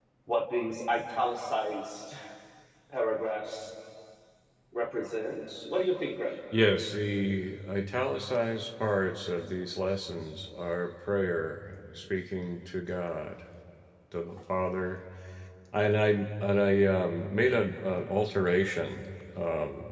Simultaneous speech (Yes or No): No